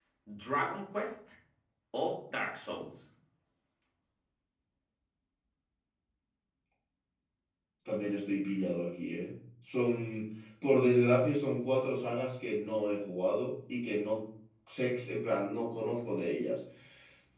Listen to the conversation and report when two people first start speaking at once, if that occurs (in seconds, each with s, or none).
none